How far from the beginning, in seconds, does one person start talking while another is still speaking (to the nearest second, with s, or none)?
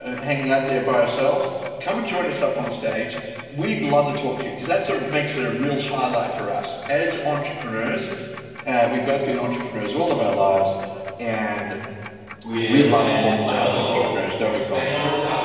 13 s